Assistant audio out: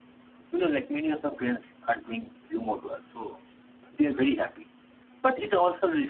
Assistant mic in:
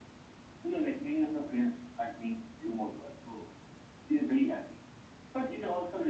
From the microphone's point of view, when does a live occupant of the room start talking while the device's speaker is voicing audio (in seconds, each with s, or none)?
none